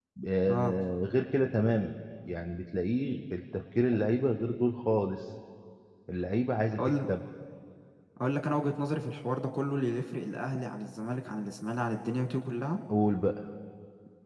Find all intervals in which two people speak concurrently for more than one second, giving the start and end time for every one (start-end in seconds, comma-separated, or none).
none